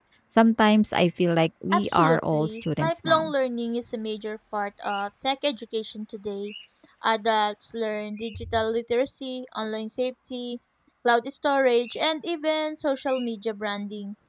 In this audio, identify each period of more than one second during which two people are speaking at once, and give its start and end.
1.7-3.3

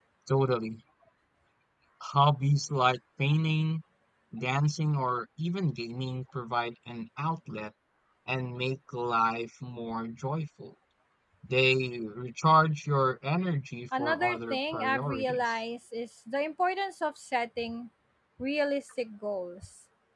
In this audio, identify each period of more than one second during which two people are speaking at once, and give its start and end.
14.0-15.6

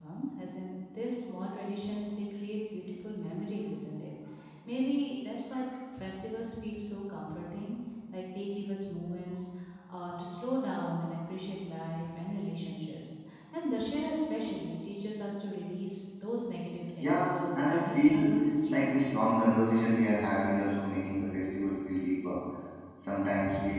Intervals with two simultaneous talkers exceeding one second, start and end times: 17.0-18.3

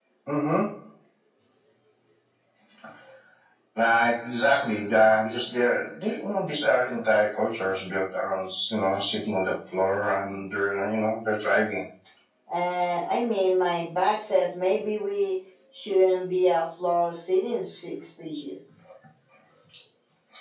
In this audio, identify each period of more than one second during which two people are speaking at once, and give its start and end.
none

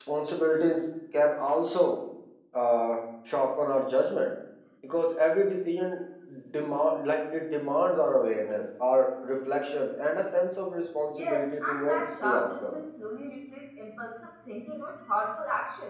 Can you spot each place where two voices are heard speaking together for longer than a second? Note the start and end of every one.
11.1-12.8

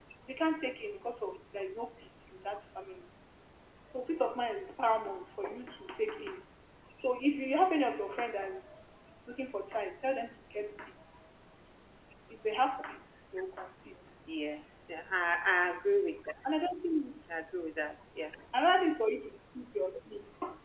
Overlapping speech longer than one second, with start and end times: none

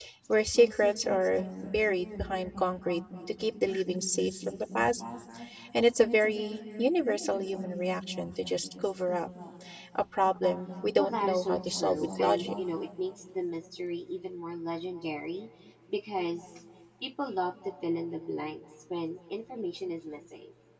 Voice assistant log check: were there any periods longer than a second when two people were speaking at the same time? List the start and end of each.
11.0-12.4

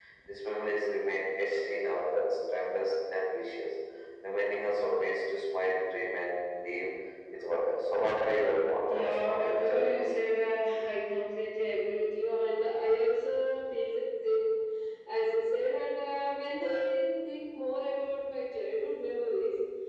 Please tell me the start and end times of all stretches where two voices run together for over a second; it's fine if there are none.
8.9-10.1

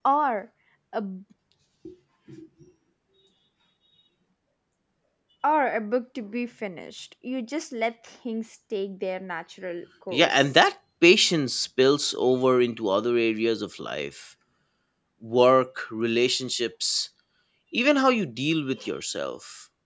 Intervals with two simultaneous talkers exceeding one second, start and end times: none

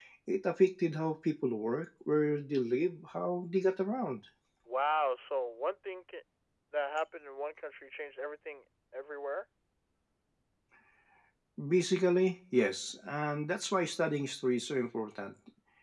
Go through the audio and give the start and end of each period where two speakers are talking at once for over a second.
none

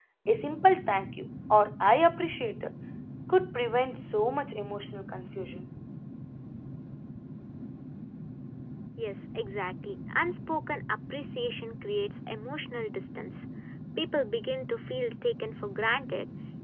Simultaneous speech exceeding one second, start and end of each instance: none

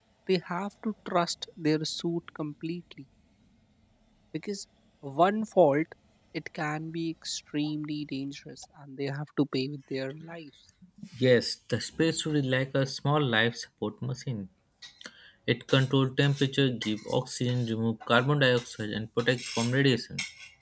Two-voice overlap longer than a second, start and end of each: none

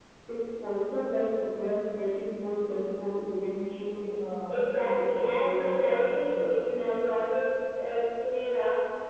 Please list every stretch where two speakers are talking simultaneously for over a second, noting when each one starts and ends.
4.5-6.6

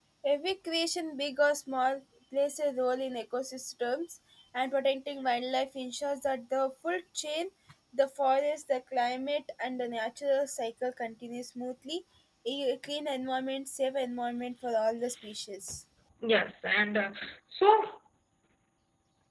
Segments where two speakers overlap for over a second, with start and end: none

